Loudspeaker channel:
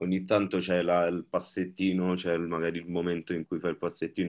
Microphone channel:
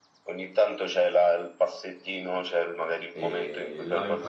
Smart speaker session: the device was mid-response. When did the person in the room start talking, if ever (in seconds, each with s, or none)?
3.1 s